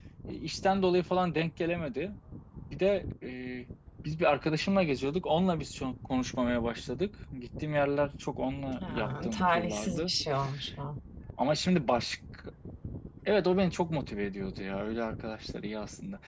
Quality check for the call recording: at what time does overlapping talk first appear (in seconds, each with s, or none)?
8.8 s